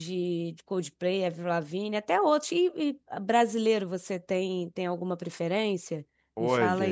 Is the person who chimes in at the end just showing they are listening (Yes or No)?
No